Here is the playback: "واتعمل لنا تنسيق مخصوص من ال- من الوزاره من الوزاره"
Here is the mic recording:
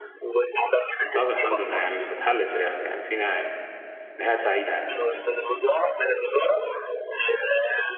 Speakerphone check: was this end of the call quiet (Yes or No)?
No